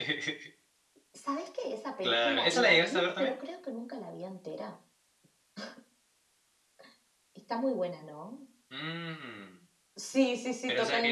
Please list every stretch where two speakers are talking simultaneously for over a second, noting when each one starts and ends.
2.0-3.3

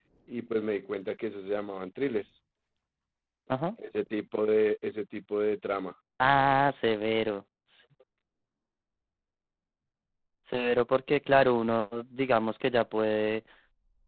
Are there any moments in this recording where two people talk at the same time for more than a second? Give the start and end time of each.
none

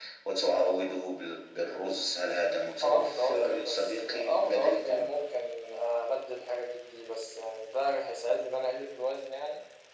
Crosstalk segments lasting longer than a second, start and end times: 2.8-5.0

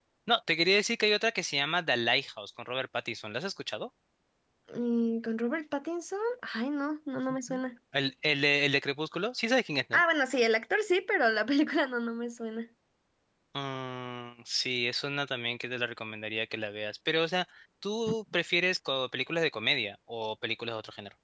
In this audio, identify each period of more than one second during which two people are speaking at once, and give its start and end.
none

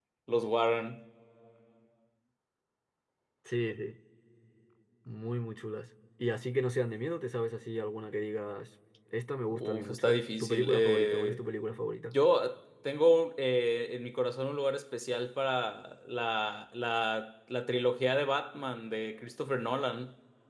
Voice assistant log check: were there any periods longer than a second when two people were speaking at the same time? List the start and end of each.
9.5-11.4

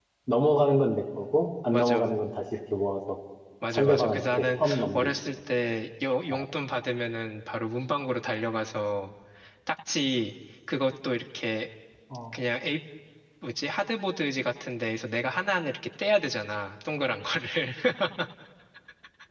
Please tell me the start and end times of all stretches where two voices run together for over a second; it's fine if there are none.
3.7-5.1

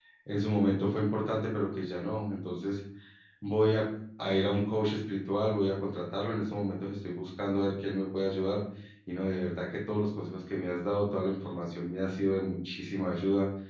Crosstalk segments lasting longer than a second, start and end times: none

